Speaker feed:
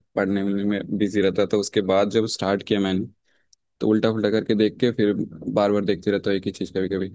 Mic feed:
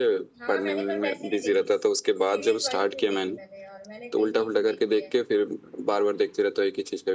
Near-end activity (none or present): present